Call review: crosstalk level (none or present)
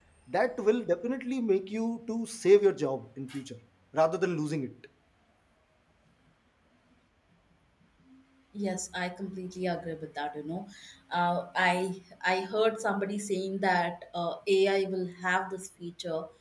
none